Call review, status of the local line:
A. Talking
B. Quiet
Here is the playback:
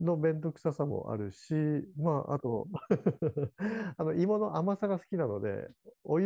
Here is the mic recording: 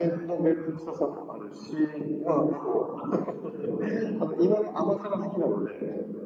B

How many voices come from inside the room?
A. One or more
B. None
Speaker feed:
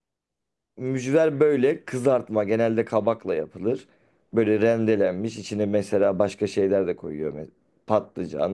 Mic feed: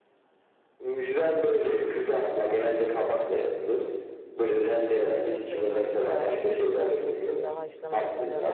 A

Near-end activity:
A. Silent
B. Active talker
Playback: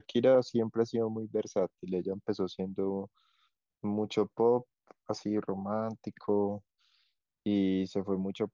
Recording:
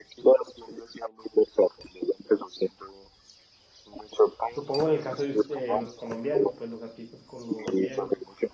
B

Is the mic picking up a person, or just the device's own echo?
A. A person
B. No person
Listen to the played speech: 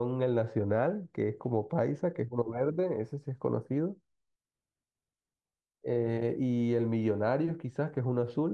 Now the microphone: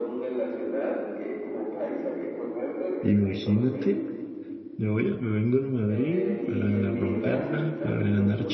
A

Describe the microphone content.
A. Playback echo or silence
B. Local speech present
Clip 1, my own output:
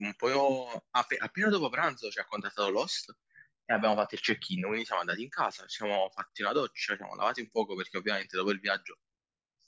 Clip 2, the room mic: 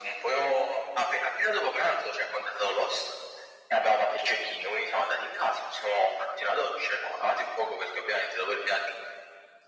A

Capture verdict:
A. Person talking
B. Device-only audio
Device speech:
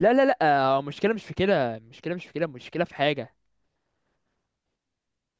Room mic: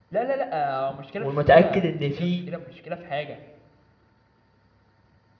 A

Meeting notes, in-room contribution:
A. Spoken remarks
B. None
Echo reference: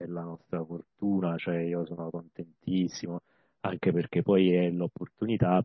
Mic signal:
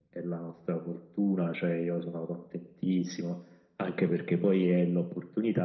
B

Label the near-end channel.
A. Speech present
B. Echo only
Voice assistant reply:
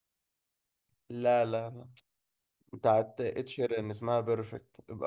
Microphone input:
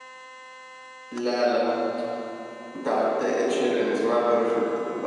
B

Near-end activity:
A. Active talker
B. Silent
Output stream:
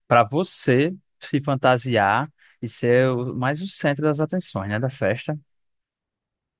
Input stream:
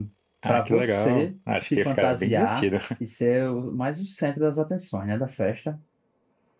A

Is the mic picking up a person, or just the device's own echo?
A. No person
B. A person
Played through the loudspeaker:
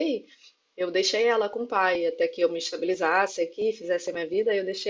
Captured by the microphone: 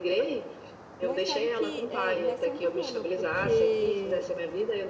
B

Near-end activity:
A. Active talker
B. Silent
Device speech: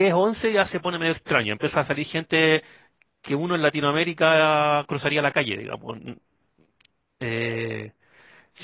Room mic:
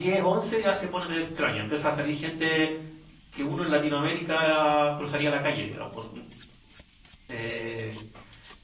B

